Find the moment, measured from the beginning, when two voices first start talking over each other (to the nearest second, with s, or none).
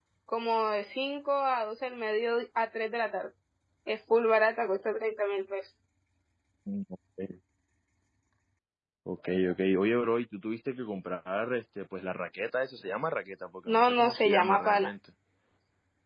14 s